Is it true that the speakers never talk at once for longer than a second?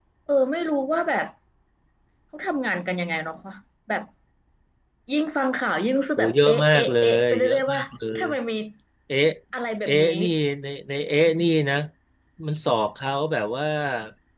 No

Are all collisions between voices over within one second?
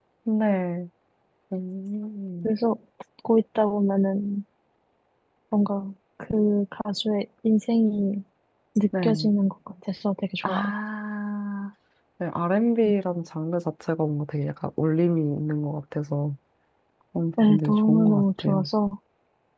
No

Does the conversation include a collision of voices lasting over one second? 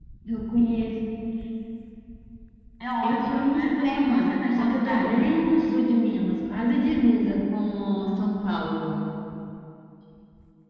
Yes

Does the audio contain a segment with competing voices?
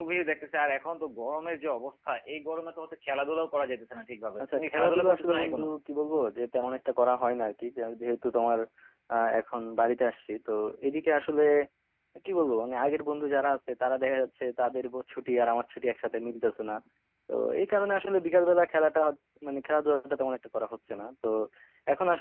Yes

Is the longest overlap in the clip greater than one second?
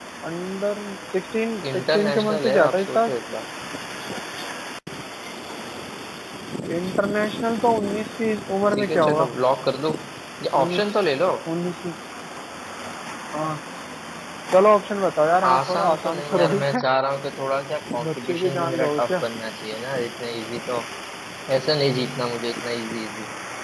Yes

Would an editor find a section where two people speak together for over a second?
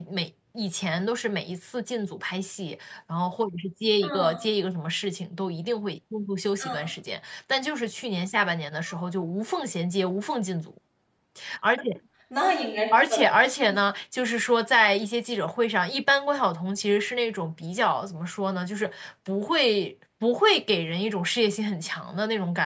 No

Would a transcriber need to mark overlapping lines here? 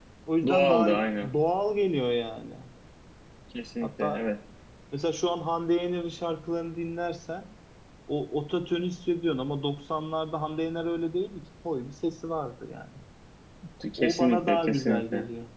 Yes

